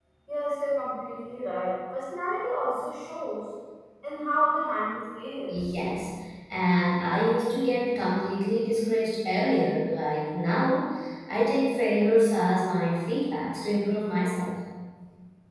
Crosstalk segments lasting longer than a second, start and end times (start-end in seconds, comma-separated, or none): none